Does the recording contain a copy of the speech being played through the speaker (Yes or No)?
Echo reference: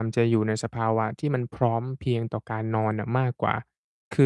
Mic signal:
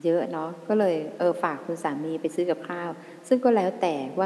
No